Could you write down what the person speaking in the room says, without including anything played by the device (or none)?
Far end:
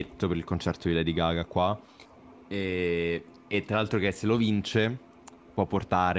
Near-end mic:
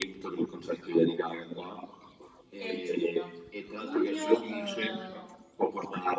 E giugno, giugno, eh, Roma.